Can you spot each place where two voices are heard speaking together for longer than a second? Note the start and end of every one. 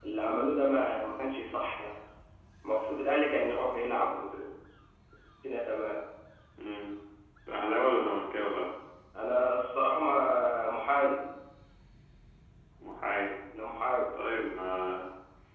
none

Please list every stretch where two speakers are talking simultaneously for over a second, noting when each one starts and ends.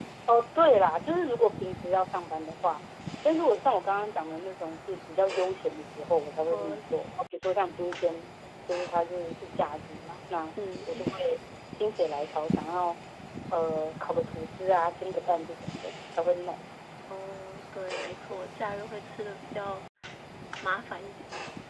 none

